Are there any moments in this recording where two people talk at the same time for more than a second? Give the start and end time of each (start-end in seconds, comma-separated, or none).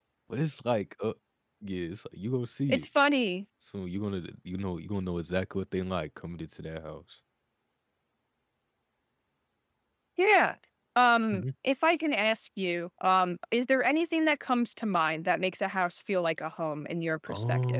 none